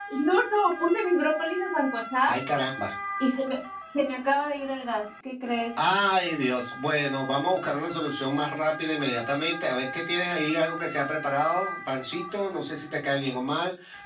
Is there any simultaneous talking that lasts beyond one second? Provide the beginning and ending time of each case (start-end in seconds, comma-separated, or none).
none